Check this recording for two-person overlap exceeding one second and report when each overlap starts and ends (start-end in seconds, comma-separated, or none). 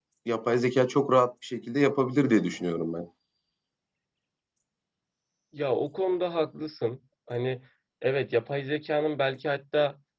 none